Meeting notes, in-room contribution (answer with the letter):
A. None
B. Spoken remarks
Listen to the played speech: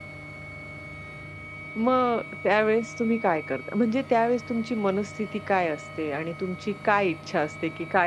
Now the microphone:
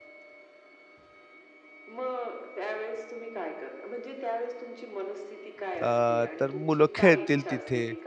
B